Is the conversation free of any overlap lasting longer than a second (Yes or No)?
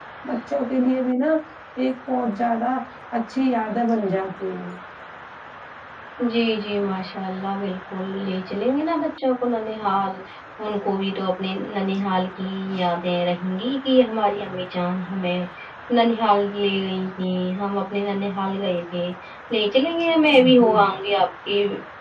Yes